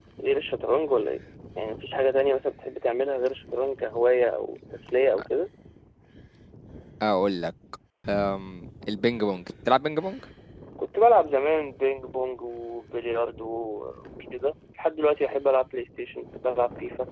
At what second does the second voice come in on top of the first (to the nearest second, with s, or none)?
none